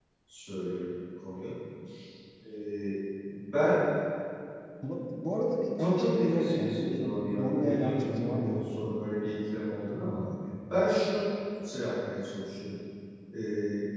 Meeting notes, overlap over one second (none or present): present